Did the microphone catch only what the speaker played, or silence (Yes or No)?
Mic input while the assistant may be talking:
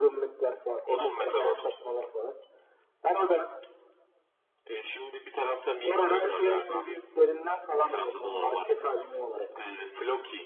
Yes